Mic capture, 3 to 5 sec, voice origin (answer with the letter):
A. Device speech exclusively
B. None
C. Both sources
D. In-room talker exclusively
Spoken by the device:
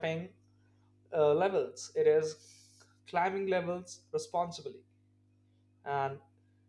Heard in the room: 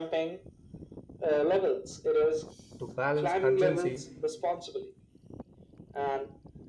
C